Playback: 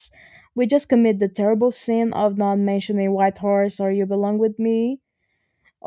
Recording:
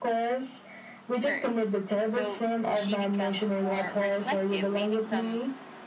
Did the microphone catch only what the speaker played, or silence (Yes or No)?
No